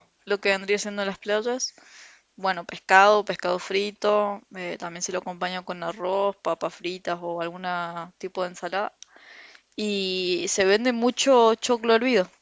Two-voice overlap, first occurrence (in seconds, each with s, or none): none